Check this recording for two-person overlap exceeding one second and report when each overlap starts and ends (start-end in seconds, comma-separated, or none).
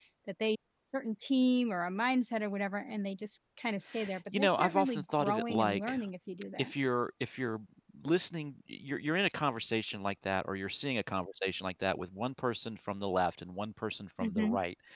4.3-6.0